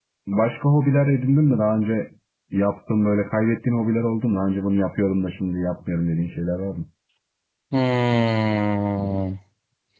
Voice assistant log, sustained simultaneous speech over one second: none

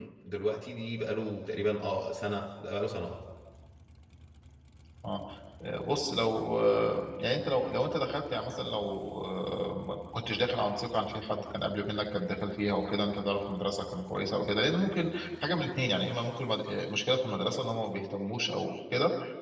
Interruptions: none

